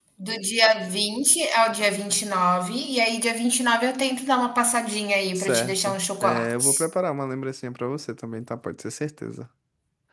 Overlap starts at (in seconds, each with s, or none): 5.4 s